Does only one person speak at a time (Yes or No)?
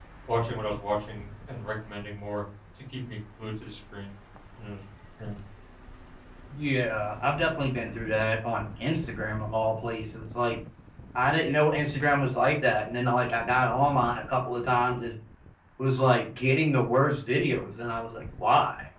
Yes